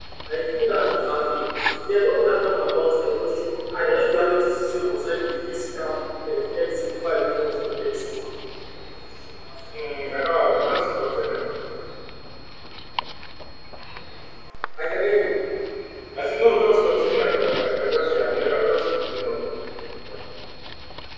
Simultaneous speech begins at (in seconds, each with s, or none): none